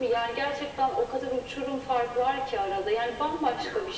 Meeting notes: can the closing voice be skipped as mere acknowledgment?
Yes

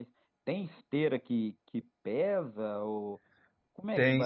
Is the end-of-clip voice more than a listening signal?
Yes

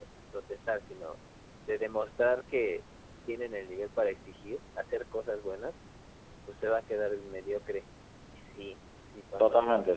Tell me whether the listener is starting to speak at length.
Yes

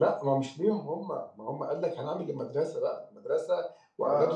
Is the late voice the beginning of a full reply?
No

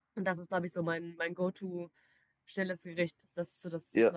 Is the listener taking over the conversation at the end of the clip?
Yes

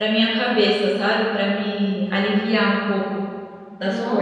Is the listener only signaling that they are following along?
No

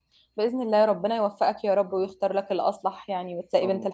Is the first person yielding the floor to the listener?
Yes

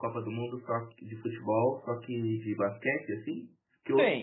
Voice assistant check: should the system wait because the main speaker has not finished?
Yes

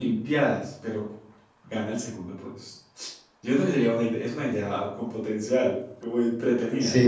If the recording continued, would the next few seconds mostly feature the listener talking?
Yes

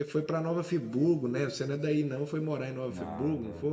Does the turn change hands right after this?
Yes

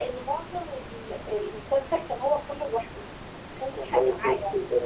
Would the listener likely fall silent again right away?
No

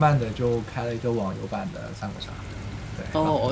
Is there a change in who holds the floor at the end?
Yes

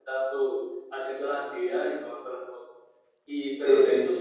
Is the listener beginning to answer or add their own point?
No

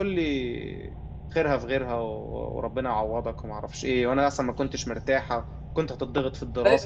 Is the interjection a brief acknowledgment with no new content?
Yes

